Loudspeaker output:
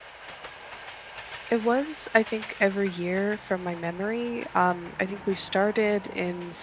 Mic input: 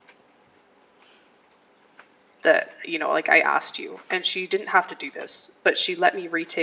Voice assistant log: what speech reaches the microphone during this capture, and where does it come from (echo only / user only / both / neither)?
user only